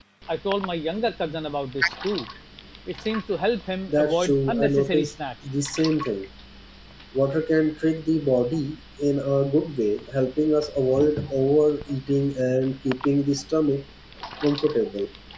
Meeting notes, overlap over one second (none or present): present